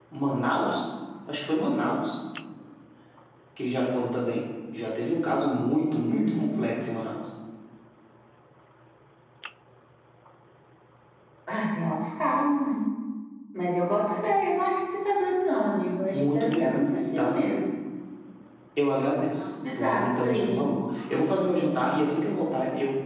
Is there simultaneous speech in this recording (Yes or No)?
Yes